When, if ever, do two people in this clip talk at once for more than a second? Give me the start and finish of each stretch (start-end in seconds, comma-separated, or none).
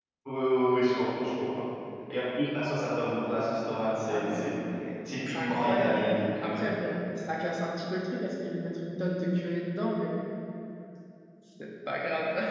5.2-6.6